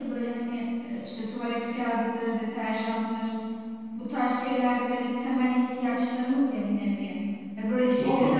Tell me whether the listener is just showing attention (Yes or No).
Yes